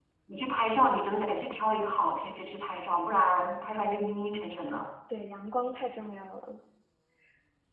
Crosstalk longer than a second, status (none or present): none